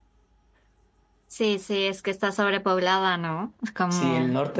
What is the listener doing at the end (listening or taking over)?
taking over